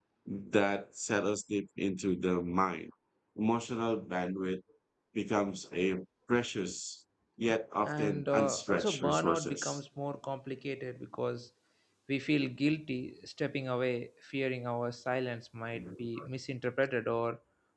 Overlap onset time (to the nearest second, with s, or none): 8 s